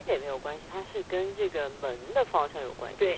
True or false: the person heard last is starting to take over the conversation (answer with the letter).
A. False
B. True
B